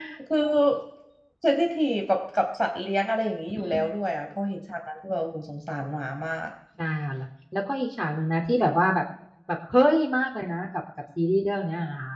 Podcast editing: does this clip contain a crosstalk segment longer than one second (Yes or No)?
No